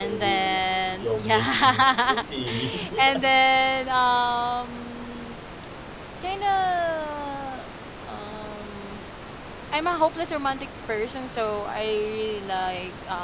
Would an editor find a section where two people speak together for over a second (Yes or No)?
Yes